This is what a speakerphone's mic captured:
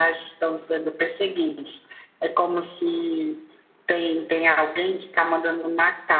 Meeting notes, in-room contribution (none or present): none